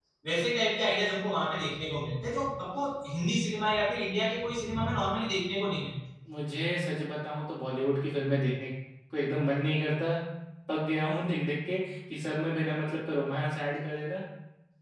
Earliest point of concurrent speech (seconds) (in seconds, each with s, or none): none